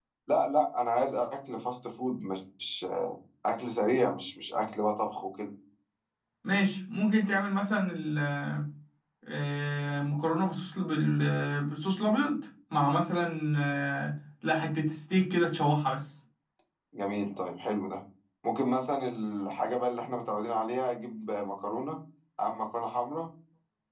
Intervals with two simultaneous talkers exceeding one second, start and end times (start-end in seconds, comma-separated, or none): none